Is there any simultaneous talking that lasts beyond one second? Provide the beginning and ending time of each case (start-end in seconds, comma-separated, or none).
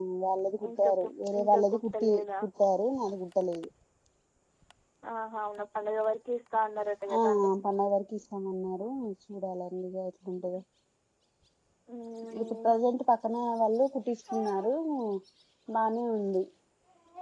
0.7-2.2